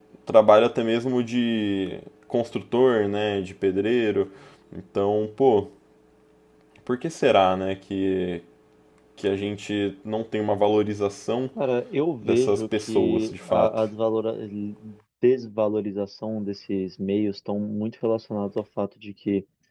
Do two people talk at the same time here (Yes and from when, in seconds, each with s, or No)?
Yes, from 12.2 s